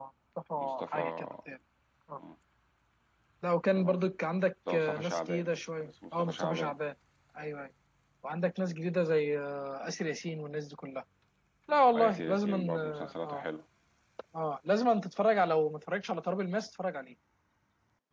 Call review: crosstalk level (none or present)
present